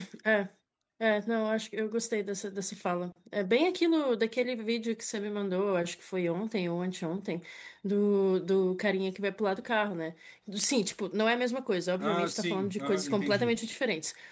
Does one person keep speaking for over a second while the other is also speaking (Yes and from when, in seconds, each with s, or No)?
Yes, from 12.0 s